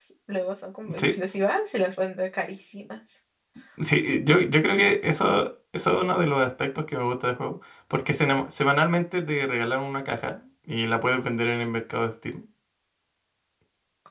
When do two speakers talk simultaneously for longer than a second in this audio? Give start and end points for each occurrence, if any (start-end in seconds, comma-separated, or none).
none